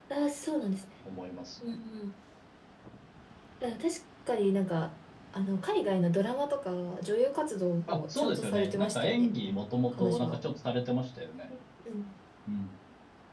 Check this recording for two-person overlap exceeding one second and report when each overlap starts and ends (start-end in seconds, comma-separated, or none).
7.9-9.3